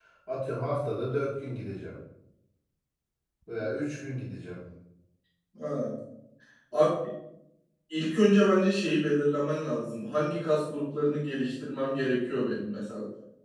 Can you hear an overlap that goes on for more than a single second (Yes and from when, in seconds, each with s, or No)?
No